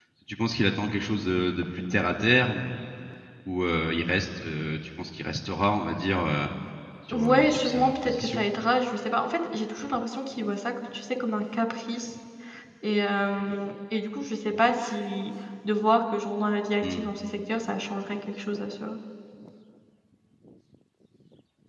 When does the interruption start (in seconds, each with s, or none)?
7.1 s